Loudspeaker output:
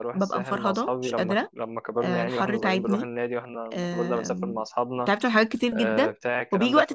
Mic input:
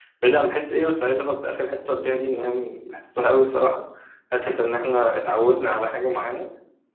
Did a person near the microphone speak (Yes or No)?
Yes